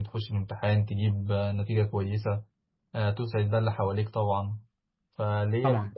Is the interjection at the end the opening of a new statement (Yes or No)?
No